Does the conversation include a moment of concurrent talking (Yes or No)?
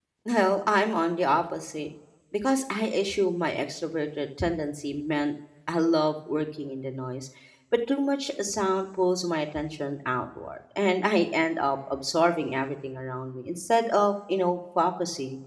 No